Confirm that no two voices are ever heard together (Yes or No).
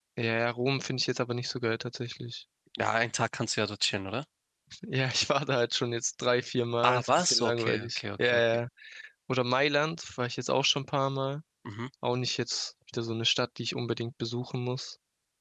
No